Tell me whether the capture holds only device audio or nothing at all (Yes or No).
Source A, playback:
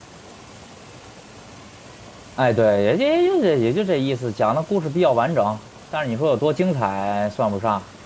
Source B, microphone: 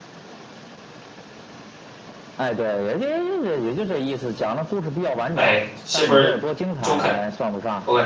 No